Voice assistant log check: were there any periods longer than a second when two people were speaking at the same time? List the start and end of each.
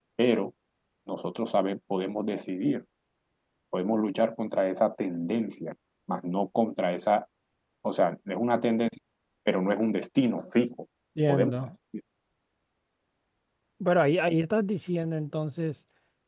none

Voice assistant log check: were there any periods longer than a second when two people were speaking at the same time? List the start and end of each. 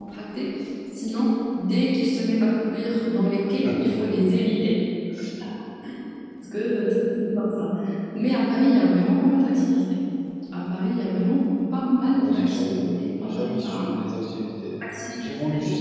12.1-13.8

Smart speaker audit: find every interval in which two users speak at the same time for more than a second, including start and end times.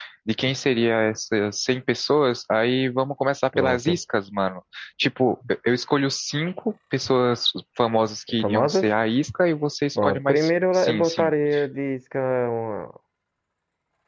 9.9-11.3

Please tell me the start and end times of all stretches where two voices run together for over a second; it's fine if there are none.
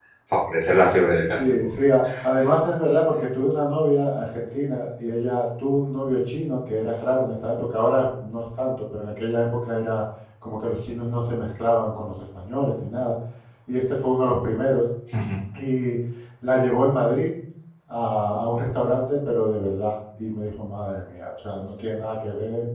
none

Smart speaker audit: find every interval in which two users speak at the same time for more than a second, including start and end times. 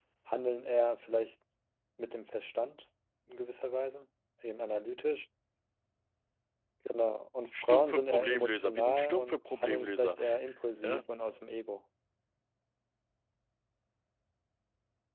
7.5-10.2

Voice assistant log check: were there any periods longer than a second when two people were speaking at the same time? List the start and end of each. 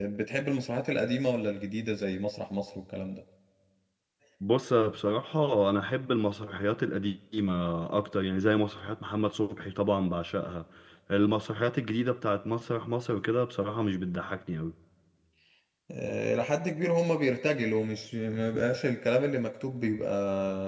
none

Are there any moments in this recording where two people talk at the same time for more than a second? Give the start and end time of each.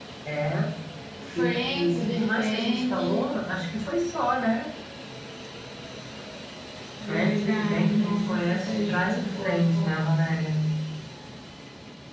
1.4-3.3, 7.1-10.0

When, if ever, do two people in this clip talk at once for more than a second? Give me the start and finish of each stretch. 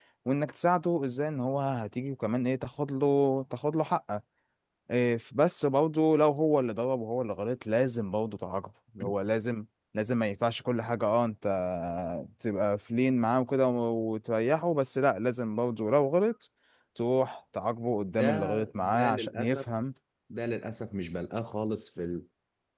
18.2-19.6

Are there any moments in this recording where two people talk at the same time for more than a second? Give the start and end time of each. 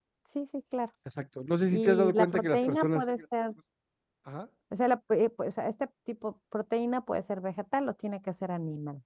1.7-3.0

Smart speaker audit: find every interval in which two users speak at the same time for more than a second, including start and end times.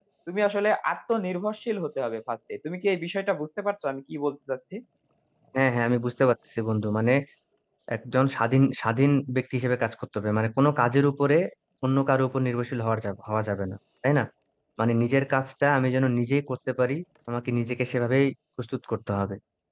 none

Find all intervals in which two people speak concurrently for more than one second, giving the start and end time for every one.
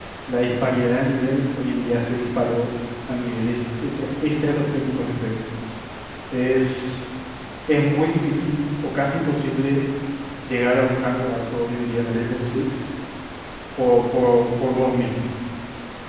none

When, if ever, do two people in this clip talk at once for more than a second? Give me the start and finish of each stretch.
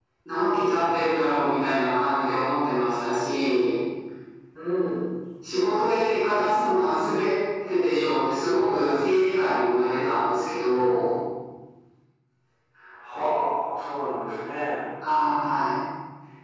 none

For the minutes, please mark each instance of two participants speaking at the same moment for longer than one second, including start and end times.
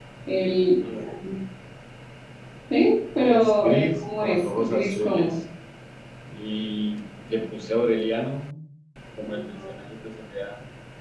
3.2-5.3

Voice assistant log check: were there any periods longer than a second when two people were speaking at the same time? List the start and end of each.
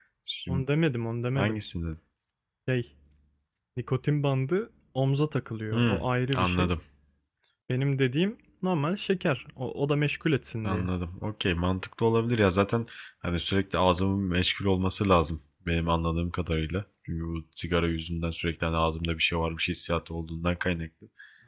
none

